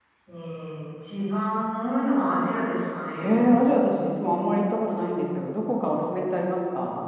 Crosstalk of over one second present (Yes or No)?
No